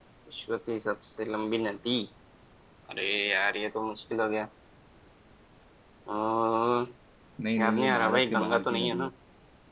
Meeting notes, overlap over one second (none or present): present